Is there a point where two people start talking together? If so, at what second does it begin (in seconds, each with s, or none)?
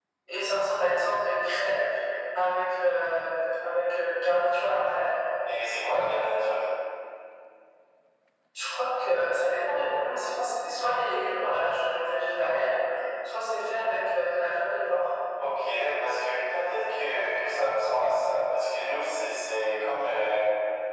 none